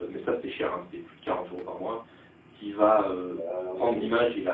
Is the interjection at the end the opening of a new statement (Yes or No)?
No